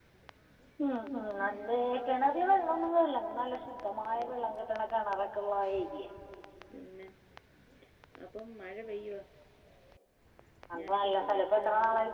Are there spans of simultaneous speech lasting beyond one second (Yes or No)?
Yes